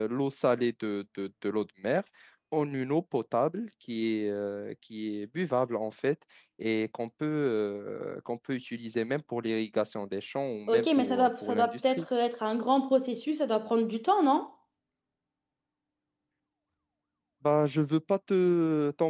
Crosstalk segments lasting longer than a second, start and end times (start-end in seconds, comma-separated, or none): 10.7-12.1